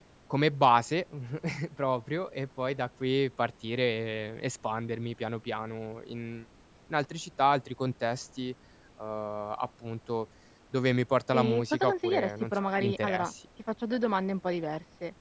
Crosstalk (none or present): present